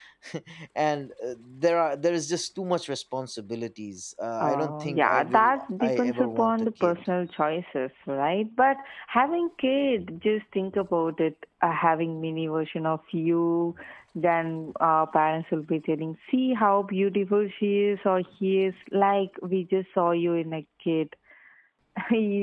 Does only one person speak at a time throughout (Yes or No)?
No